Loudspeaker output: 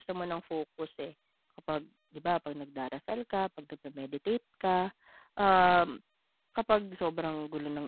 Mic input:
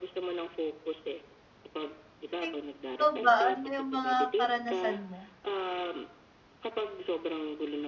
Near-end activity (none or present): present